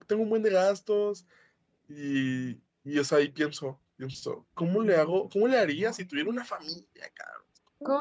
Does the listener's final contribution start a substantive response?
Yes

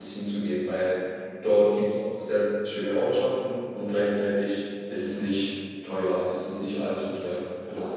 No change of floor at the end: No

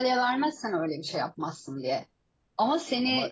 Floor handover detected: No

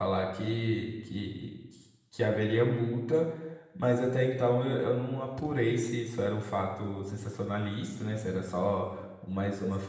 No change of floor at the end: Yes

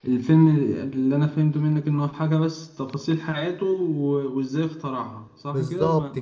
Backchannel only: No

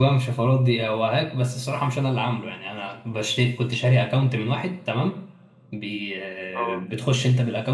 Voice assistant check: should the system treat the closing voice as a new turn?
No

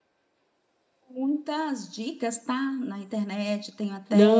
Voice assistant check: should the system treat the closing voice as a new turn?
Yes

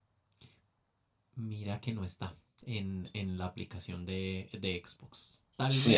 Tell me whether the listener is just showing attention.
Yes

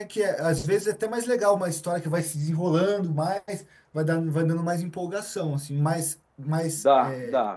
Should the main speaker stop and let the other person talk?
Yes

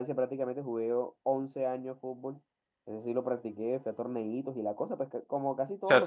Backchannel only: No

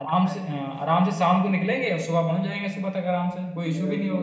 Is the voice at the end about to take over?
Yes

